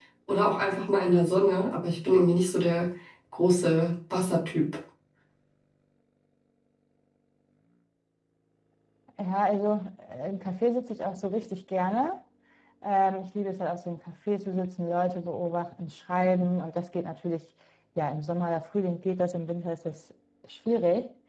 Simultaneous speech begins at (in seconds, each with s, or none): none